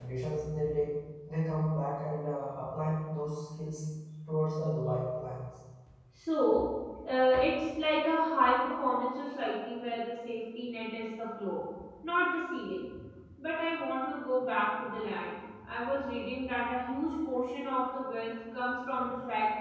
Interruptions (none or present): none